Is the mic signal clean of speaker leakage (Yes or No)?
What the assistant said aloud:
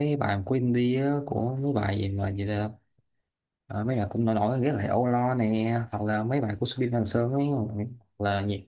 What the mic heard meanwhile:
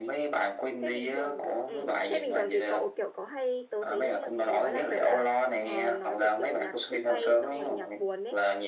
No